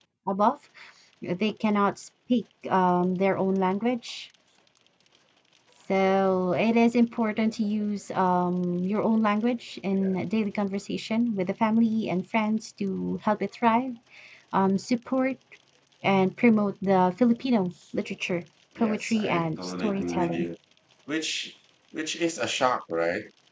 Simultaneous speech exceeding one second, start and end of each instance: 18.8-20.5

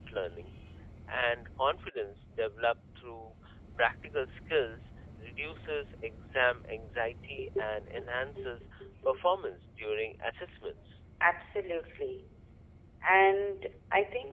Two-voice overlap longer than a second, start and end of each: none

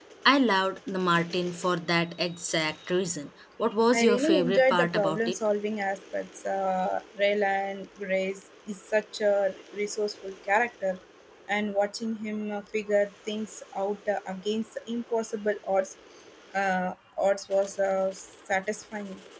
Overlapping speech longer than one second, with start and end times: 3.9-5.4

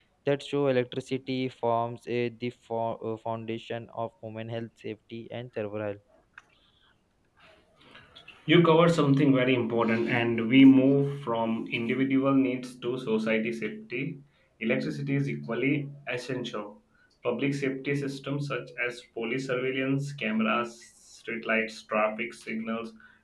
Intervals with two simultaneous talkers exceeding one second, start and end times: none

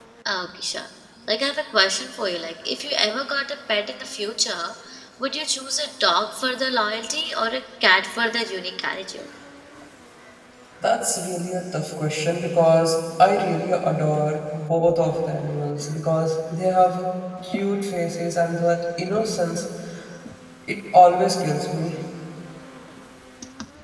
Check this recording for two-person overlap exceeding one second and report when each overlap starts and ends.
none

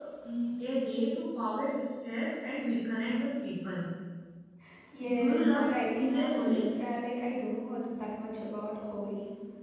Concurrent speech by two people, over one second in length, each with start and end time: 5.1-6.6

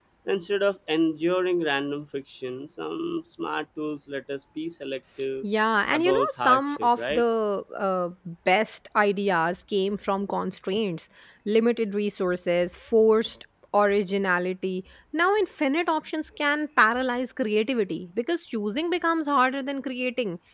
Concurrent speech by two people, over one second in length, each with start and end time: 5.9-7.2

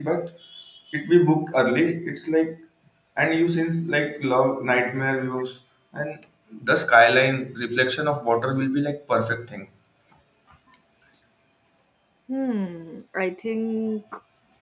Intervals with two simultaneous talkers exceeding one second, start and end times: none

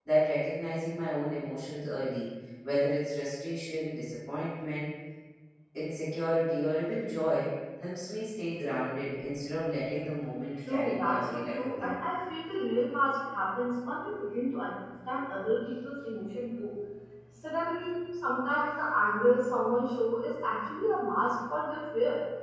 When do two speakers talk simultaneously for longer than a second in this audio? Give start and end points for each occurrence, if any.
10.7-12.0

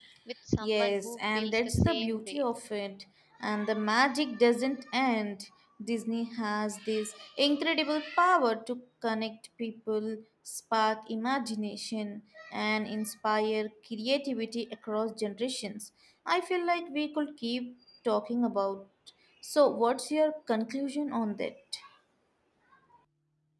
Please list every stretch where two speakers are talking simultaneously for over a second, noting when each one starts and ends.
0.6-2.4

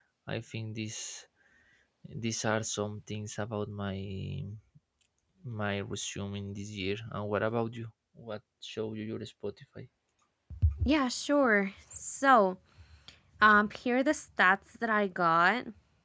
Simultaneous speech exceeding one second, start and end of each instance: none

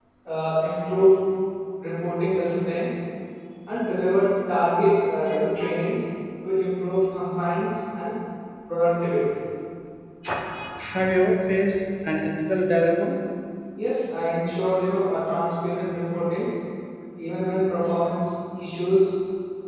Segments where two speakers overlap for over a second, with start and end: none

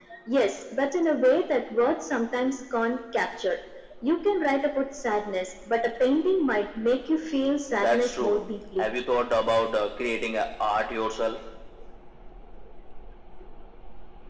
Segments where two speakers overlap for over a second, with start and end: 7.7-8.9

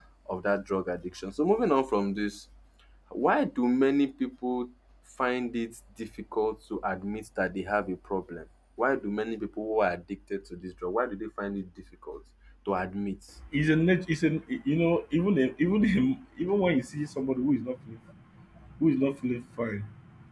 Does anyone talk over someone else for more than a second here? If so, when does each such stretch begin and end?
none

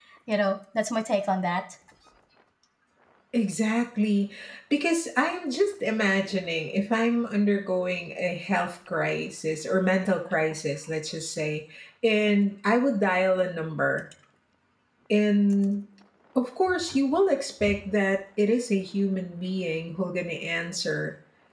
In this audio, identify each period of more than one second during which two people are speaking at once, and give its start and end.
none

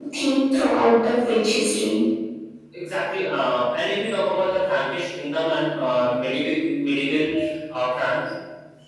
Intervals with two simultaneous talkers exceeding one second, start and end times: none

